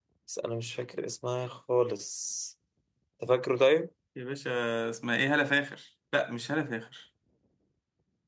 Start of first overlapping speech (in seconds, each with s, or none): none